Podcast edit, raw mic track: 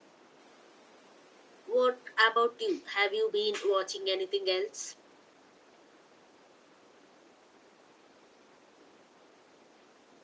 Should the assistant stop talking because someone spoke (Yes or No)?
Yes